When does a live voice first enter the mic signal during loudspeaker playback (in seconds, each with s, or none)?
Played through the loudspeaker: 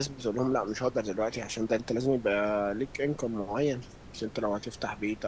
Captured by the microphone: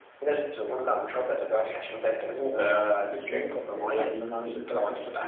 2.5 s